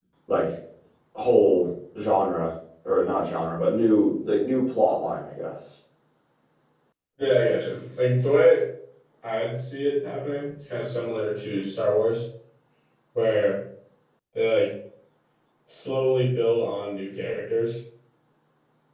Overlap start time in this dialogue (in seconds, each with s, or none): none